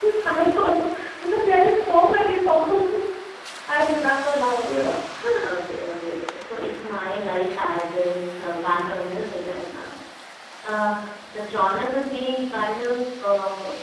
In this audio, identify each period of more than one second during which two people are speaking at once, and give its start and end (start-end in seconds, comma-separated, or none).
none